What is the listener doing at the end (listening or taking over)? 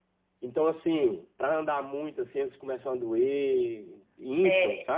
taking over